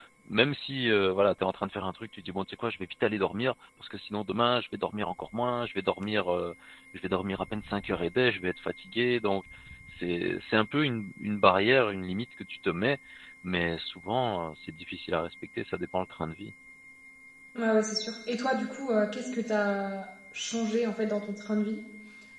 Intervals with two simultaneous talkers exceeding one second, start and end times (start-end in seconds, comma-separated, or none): none